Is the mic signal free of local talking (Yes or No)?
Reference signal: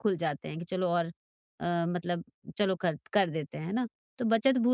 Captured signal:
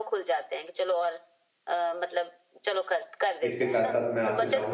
No